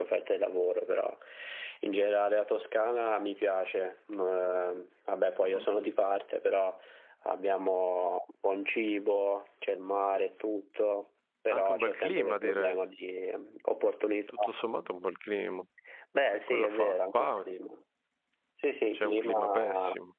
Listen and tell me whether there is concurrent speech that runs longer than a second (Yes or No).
Yes